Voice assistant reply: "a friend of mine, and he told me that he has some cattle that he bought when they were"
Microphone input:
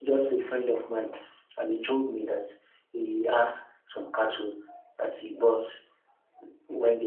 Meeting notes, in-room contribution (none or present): none